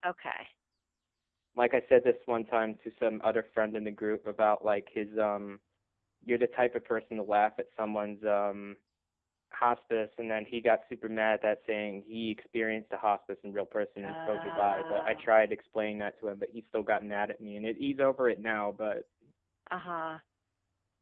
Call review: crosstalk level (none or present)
present